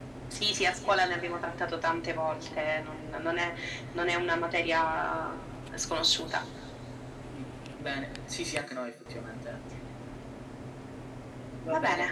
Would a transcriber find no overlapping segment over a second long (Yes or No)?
Yes